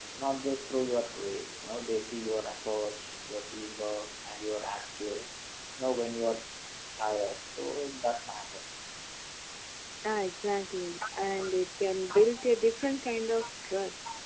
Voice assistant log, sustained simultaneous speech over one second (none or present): none